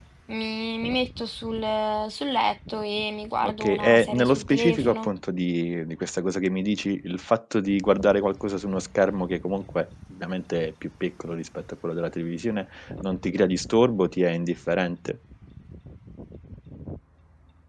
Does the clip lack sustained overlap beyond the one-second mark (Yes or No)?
No